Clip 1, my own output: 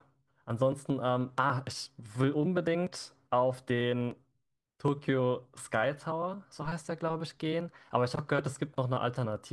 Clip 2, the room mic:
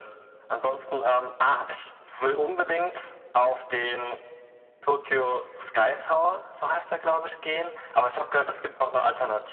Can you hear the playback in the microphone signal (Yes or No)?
Yes